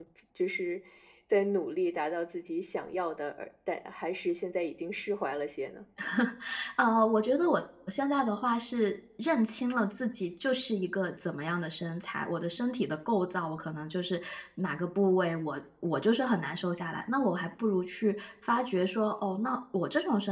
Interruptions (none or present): none